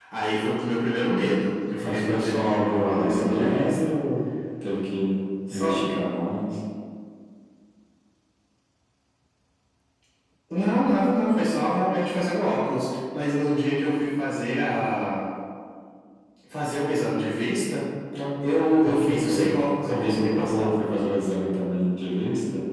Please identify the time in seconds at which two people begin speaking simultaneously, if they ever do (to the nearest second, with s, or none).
2 s